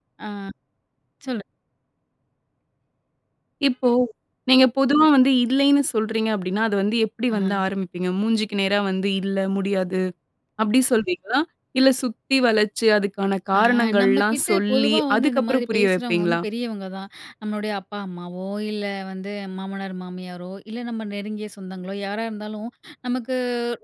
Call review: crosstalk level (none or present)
present